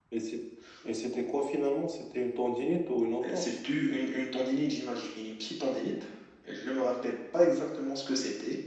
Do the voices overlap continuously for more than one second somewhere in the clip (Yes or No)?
No